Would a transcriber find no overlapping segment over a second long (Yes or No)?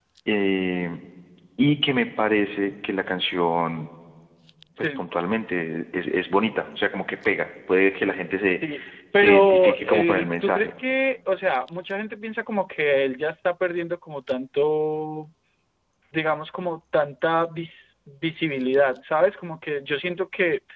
No